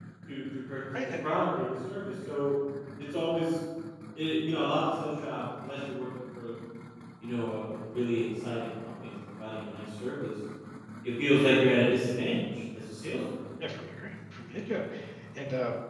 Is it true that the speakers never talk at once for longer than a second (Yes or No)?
Yes